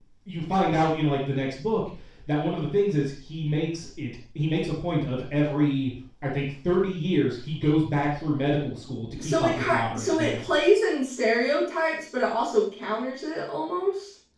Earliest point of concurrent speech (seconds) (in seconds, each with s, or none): 9.2 s